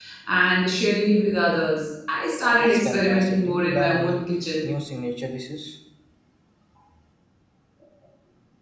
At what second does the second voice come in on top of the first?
2.6 s

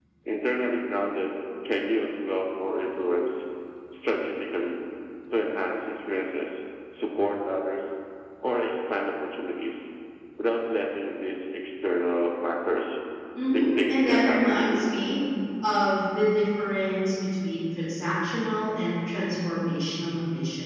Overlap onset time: 13.5 s

